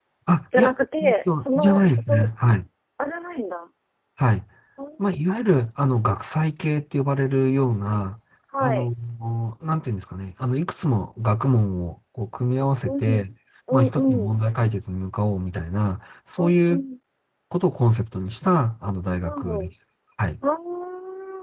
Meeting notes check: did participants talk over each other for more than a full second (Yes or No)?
Yes